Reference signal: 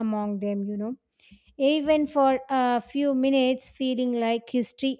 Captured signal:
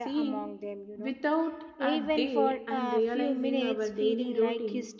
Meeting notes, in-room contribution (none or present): present